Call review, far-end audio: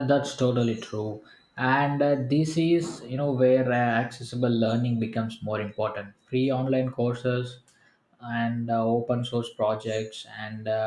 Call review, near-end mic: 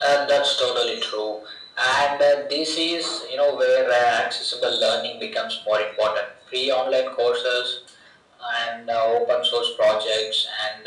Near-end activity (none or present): none